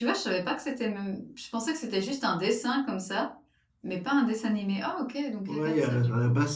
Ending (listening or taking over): taking over